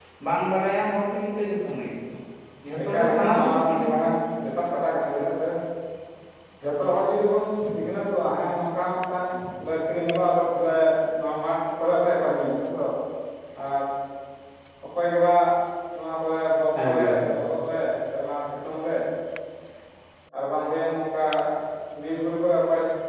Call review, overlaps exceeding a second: present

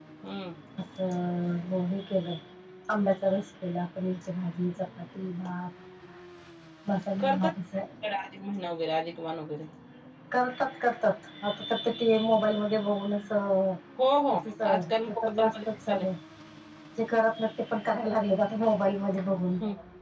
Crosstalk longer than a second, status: present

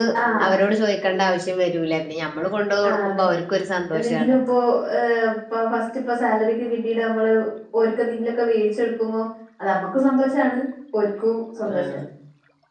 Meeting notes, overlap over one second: none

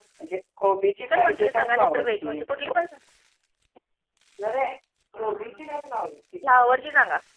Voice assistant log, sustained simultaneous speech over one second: present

